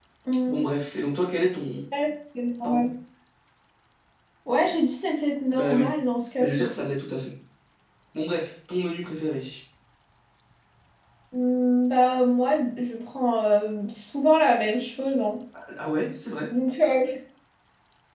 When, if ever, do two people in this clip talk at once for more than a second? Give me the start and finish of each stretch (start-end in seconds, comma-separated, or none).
none